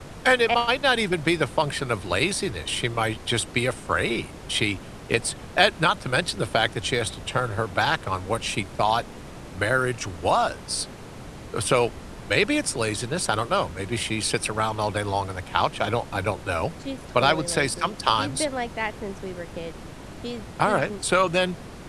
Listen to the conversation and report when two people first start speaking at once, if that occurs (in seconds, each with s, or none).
17.2 s